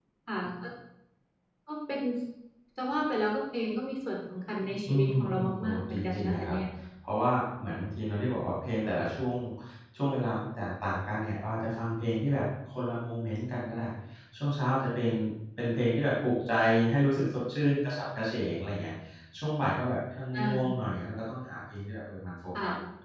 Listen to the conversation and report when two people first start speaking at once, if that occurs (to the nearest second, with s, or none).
5 s